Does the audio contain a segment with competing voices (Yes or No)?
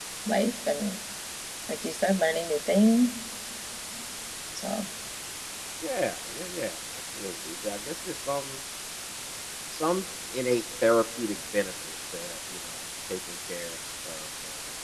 No